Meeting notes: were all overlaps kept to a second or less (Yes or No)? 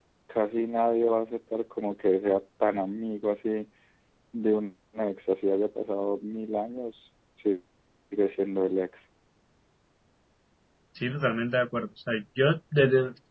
Yes